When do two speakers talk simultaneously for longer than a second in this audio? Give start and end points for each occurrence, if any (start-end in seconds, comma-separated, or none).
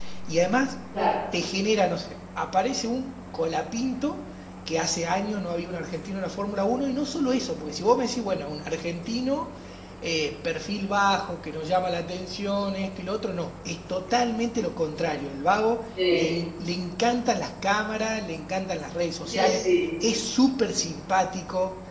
none